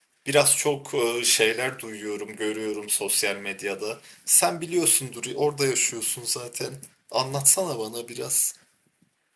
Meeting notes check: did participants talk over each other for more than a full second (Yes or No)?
No